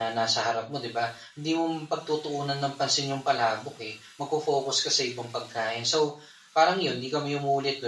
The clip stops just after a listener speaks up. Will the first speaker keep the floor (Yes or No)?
Yes